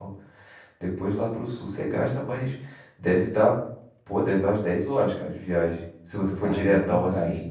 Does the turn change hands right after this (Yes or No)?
Yes